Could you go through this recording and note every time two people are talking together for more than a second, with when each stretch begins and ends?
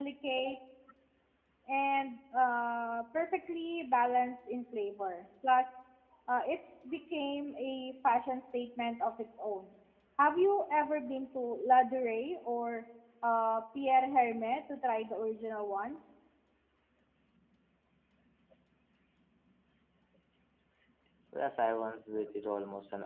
none

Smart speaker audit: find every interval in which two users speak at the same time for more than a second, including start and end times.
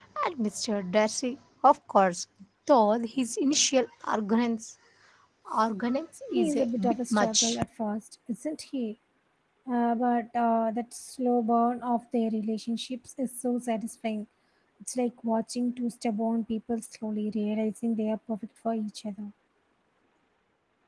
6.3-7.6

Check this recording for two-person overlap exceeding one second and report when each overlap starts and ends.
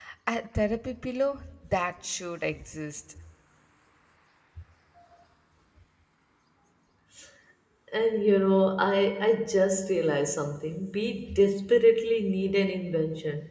none

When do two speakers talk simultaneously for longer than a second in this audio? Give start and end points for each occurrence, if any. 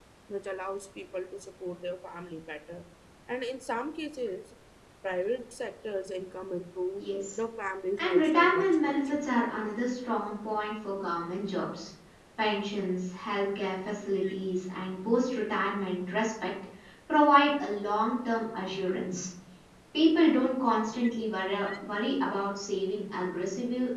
8.0-9.2

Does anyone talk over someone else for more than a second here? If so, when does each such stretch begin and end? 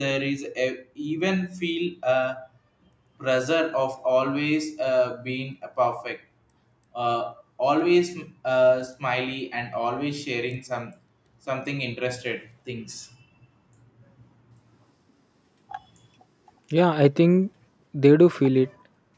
none

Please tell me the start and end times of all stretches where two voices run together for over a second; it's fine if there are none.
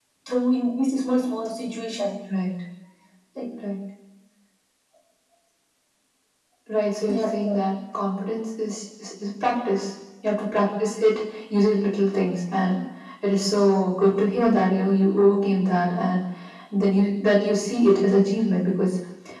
none

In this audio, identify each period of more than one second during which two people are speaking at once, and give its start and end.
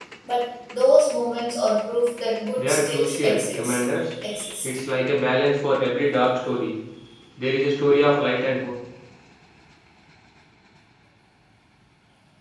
2.6-3.8

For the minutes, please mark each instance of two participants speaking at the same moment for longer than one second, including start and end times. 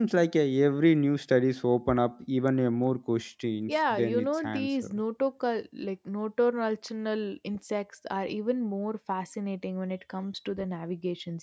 3.7-4.9

